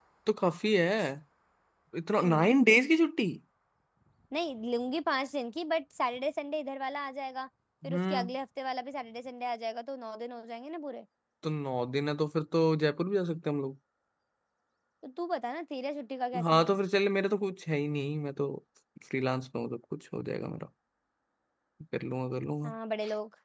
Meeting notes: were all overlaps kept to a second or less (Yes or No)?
Yes